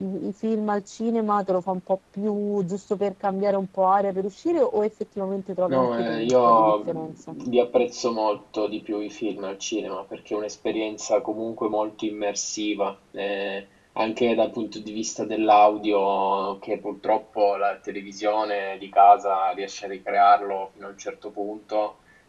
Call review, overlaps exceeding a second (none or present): present